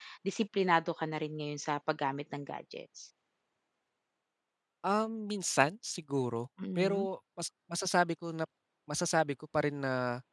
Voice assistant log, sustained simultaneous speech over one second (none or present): none